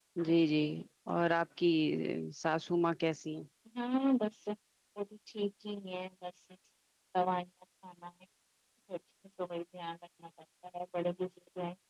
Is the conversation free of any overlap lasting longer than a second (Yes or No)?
Yes